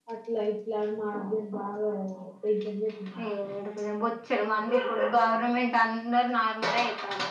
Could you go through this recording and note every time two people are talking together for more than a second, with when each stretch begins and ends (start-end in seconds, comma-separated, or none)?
none